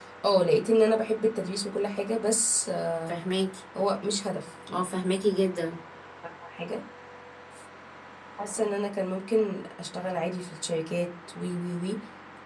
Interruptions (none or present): none